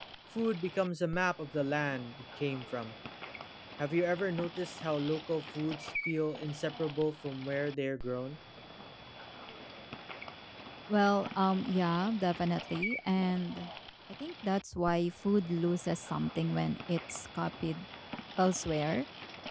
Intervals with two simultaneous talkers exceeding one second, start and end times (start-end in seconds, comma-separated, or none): none